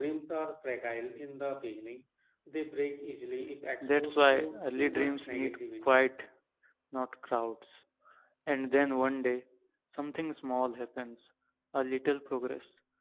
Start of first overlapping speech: 3.8 s

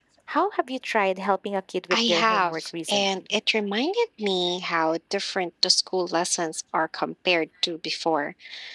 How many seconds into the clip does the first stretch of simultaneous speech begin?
1.9 s

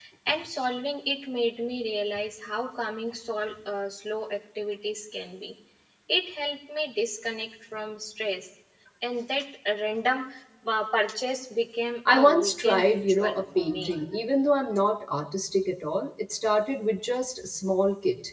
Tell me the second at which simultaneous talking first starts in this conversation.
12.0 s

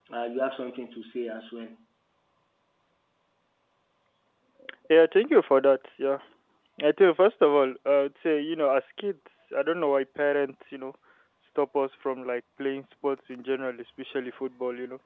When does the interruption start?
none

